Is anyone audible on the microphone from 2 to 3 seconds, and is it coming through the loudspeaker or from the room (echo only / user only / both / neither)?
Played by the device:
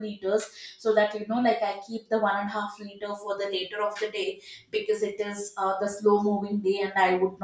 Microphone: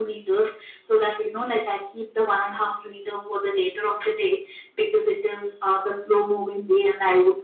echo only